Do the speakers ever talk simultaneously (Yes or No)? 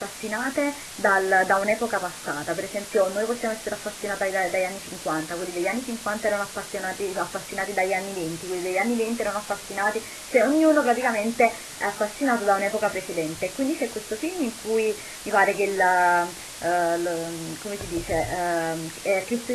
No